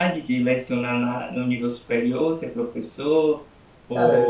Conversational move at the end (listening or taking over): listening